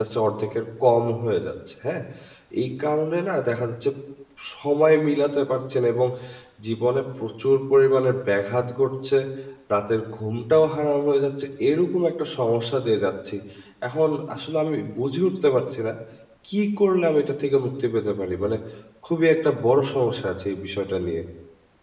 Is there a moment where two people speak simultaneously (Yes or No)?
No